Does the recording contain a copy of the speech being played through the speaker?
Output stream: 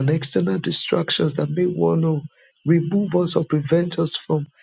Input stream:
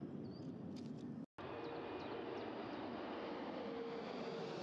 No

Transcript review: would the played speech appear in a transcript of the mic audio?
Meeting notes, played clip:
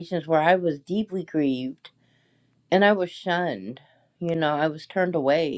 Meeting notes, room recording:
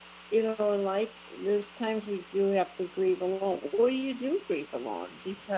No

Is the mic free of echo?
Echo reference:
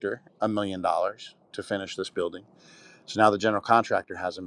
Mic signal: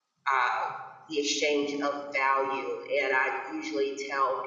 Yes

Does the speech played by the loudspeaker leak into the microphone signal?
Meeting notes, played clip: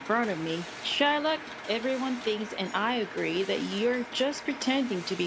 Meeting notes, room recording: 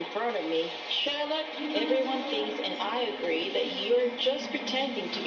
Yes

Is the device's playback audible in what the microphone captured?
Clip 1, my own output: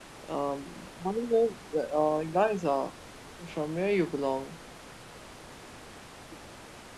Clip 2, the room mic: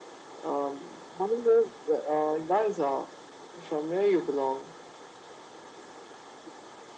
Yes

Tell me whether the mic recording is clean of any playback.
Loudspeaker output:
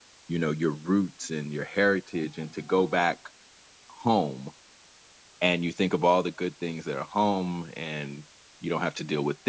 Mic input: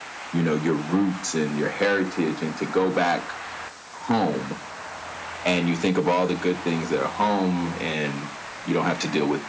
No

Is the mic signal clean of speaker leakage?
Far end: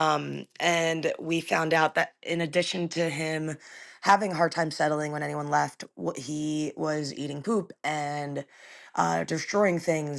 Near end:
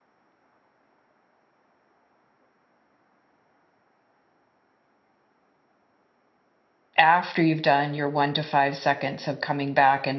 Yes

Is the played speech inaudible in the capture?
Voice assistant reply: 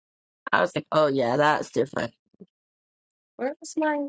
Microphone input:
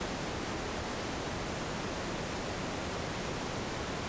Yes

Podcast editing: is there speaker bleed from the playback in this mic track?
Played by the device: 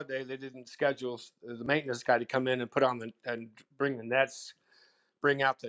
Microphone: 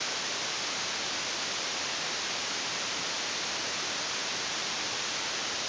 No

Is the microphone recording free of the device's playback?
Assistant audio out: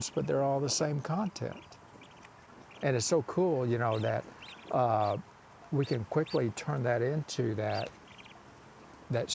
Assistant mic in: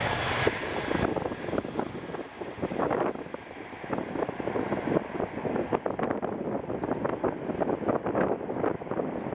Yes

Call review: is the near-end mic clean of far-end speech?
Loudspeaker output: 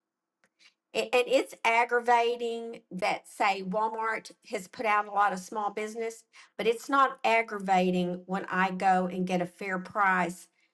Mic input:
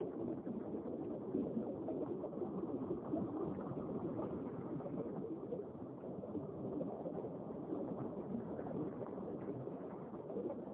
Yes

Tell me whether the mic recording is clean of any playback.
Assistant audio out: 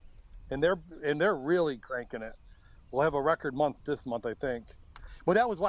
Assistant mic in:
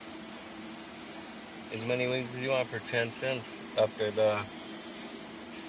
Yes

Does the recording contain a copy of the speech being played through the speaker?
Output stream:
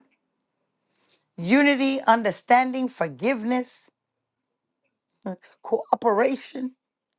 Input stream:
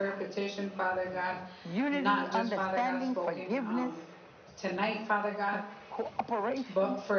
Yes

